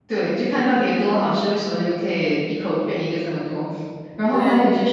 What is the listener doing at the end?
listening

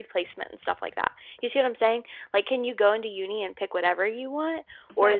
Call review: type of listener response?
taking over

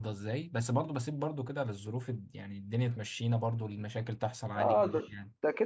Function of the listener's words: taking over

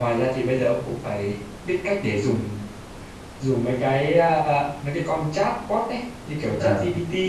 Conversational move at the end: listening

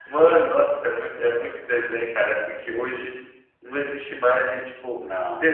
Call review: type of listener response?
listening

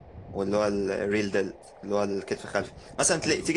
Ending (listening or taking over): listening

